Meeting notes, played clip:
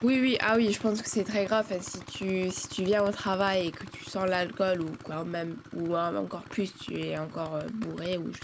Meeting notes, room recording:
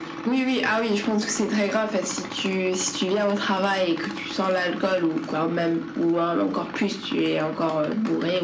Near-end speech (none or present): none